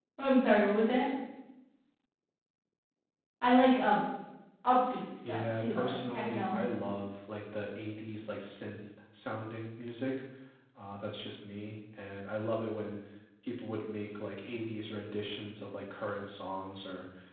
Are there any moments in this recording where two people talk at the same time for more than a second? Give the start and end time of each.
5.2-6.6

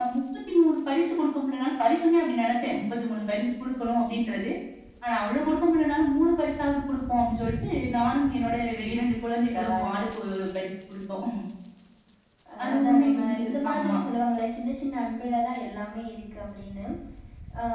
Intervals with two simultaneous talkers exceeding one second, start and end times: 12.6-14.0

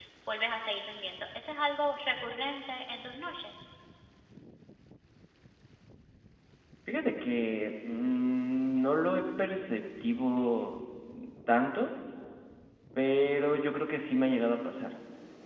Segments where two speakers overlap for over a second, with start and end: none

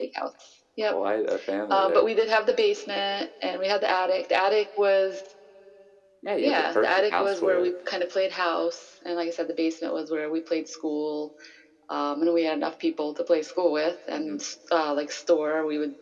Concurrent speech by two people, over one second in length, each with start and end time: 6.4-7.7

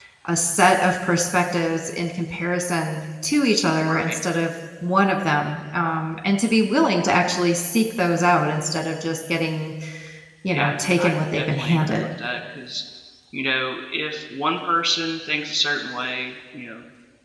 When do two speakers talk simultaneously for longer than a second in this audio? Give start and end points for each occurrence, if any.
10.5-12.1

